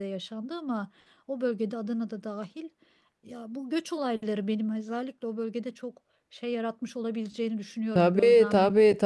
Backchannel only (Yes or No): No